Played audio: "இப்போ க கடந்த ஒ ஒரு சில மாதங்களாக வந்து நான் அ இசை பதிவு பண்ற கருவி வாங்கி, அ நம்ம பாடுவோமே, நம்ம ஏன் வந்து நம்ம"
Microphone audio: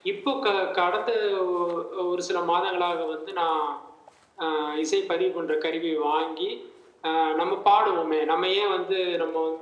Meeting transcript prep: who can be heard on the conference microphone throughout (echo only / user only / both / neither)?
echo only